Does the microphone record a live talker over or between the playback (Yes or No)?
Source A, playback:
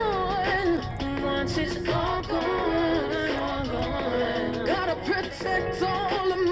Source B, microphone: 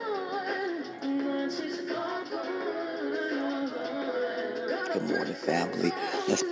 Yes